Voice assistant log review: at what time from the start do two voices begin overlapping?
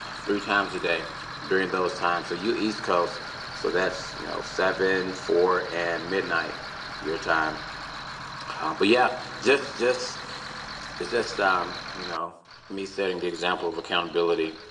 none

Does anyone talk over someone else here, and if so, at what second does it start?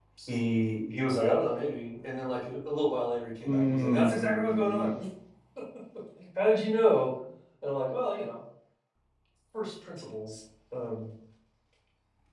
3.5 s

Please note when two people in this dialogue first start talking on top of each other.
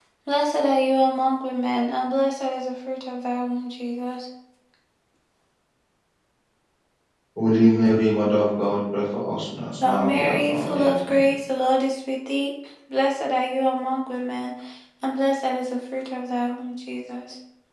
9.8 s

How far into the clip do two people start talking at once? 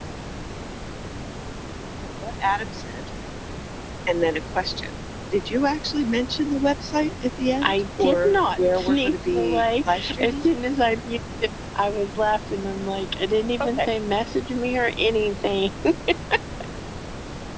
7.6 s

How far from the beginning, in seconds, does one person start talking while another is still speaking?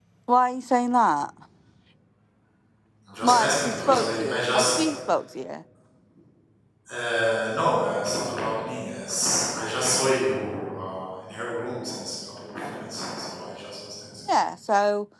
3.2 s

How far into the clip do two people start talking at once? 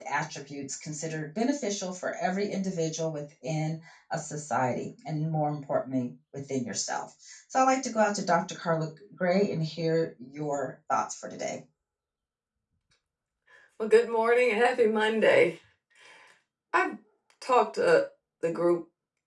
none

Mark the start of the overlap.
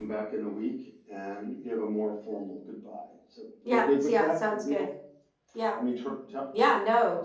3.6 s

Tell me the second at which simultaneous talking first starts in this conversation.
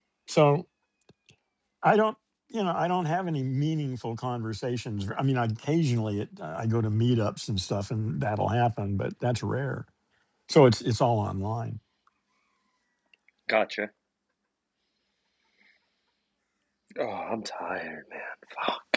none

